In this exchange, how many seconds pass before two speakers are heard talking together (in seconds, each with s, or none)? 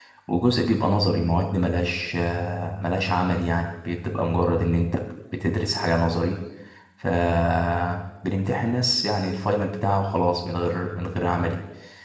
none